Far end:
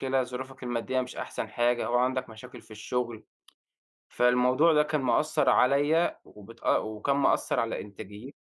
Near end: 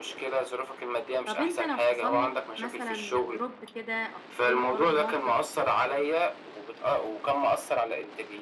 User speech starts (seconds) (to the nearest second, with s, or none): 1 s